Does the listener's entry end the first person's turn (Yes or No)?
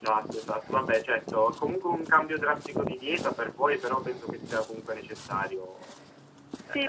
Yes